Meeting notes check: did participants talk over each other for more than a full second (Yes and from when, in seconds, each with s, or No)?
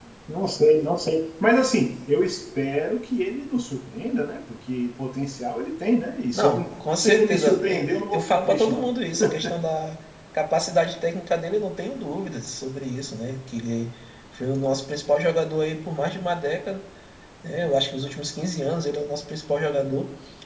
Yes, from 6.3 s